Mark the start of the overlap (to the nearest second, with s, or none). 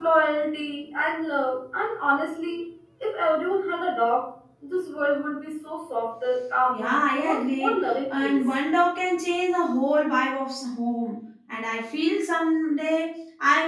7 s